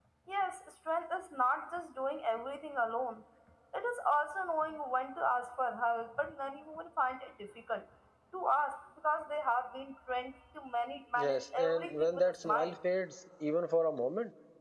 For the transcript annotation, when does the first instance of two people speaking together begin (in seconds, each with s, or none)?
11.2 s